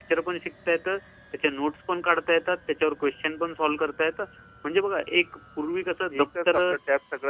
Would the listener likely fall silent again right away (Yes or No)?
No